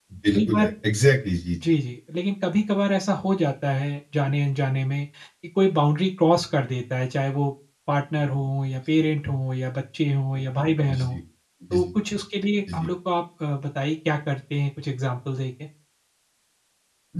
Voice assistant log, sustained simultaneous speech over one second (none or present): none